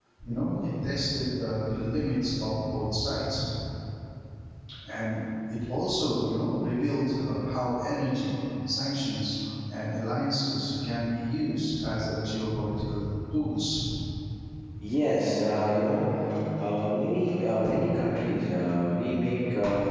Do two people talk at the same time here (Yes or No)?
No